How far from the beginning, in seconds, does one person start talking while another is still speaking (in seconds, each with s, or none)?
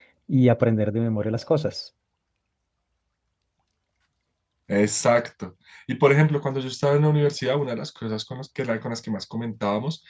none